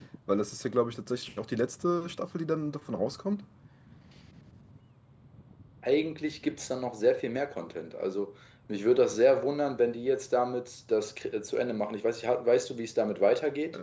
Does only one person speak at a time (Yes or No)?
Yes